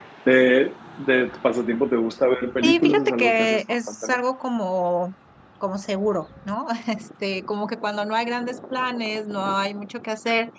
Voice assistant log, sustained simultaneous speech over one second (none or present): present